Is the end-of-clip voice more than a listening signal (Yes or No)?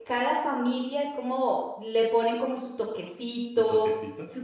No